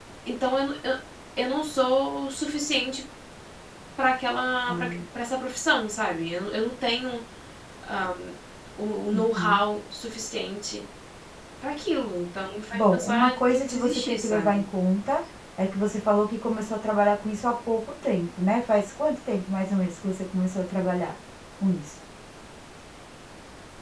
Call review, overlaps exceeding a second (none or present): present